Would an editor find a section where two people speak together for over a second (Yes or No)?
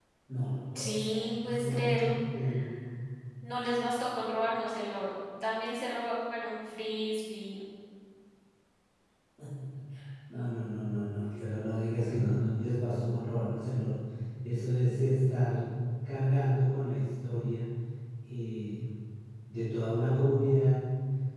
Yes